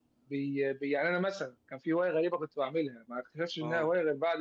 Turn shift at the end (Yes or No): No